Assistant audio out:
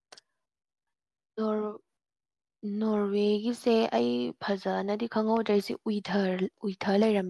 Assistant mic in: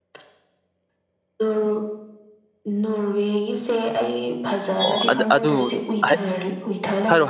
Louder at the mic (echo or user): user